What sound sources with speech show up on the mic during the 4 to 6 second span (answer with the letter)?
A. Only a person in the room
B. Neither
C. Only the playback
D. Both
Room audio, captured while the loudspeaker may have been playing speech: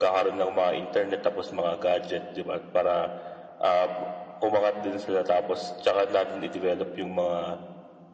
C